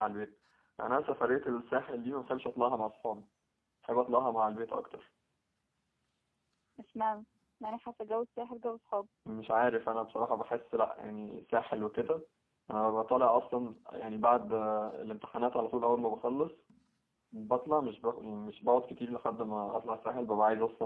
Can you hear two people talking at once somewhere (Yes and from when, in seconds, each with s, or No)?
No